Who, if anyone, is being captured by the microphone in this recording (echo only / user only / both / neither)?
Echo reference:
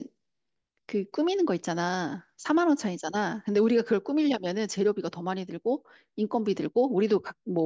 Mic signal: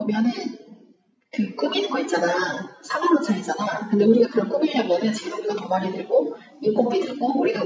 echo only